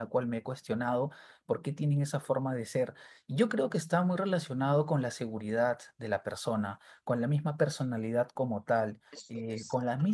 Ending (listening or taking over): listening